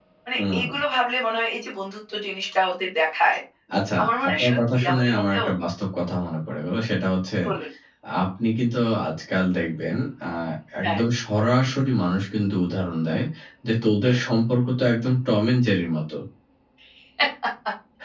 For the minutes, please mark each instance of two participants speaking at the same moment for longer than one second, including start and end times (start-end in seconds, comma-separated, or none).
4.0-5.5